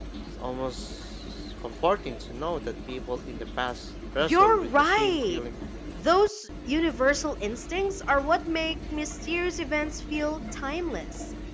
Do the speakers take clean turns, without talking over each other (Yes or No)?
No